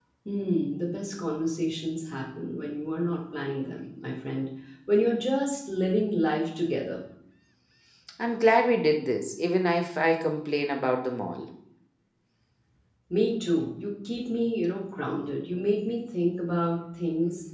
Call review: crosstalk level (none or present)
none